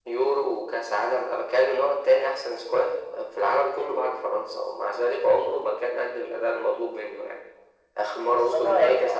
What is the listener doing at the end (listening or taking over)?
listening